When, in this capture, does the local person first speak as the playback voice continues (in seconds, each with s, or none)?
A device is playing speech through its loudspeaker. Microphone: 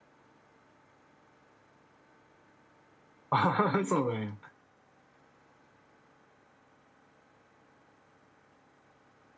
3.3 s